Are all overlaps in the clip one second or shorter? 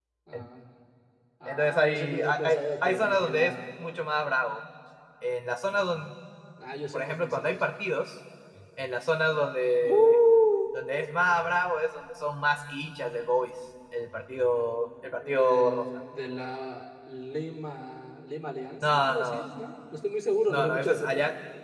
No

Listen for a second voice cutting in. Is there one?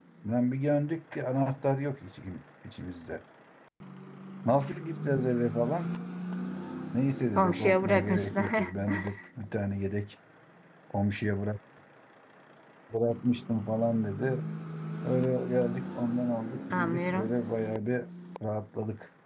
Yes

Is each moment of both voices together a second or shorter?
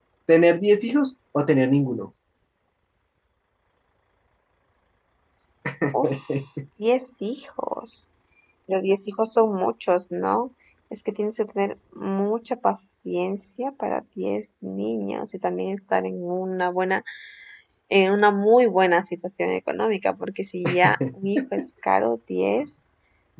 Yes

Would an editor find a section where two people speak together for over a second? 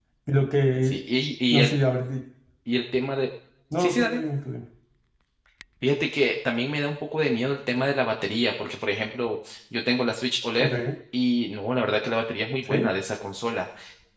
No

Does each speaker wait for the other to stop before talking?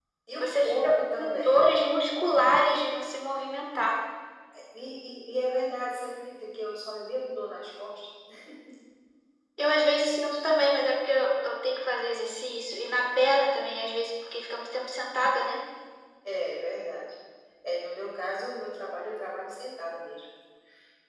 No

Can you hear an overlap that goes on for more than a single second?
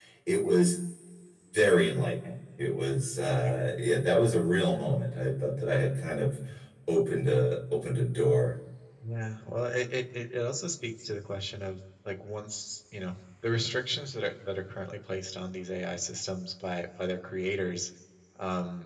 No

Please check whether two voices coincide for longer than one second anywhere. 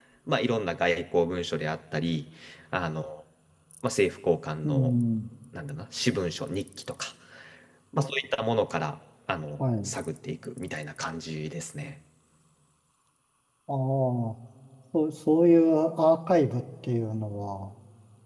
No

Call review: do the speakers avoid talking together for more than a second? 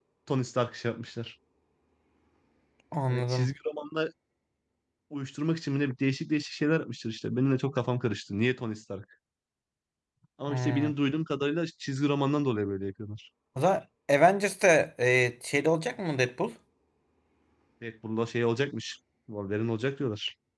Yes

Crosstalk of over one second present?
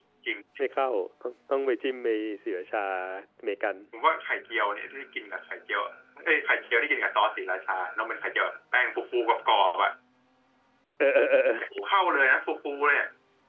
No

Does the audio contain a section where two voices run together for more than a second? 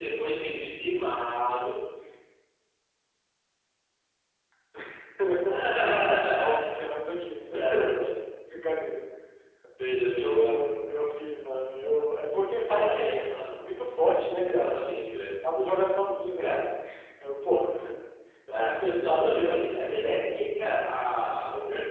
Yes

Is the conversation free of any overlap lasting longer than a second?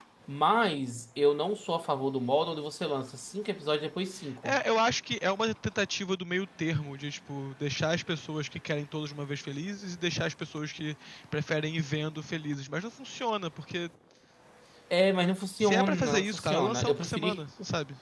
No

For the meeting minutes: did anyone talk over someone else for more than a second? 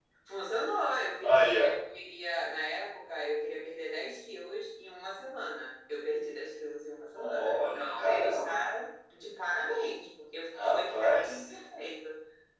Yes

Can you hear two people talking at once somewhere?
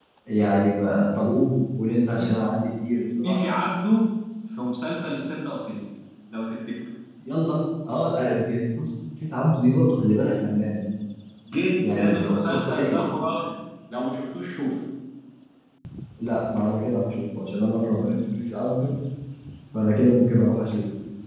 Yes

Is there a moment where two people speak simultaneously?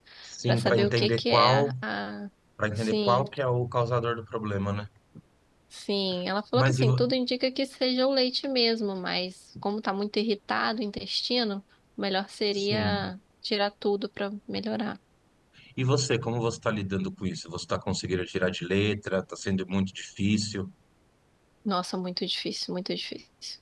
Yes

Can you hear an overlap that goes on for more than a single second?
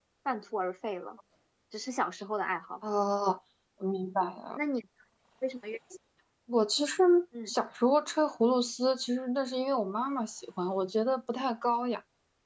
No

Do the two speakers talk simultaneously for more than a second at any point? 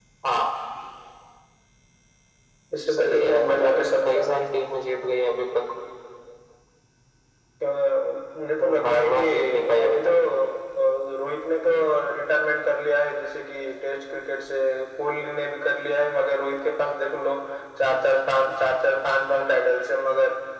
Yes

